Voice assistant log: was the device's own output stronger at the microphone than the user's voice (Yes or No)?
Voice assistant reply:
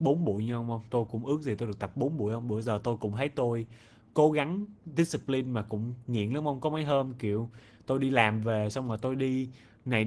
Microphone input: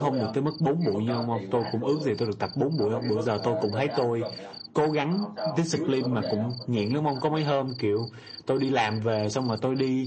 Yes